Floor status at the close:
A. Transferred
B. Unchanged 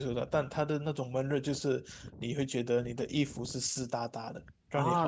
A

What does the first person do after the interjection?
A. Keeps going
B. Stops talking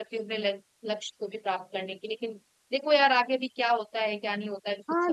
B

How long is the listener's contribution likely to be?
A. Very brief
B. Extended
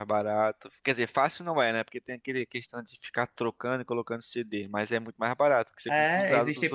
B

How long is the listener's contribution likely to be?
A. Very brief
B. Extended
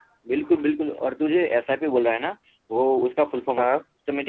A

